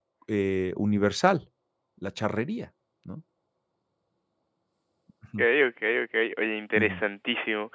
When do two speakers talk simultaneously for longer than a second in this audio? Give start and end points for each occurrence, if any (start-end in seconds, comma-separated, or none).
none